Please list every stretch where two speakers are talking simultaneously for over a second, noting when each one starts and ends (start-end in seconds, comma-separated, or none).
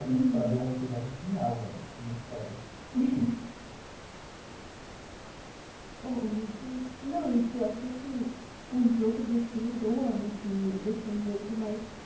none